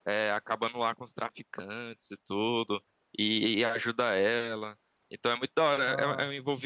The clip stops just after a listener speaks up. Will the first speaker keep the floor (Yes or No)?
Yes